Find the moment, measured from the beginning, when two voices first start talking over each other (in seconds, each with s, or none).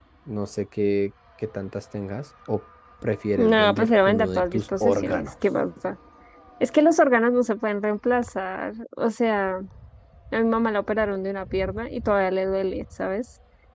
3.4 s